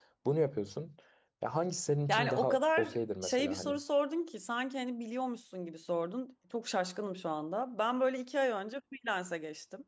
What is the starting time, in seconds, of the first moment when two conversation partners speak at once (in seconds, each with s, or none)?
2.1 s